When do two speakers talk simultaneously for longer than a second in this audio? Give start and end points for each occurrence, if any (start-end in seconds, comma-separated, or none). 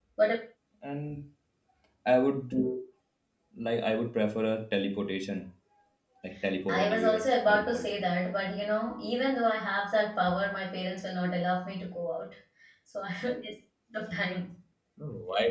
6.7-7.9